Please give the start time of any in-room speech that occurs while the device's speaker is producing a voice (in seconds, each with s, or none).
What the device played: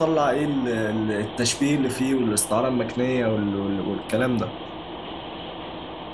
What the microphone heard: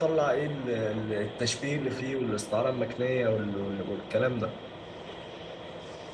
none